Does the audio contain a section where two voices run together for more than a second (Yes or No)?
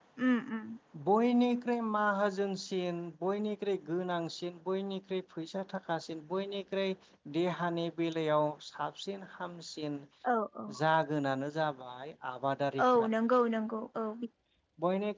No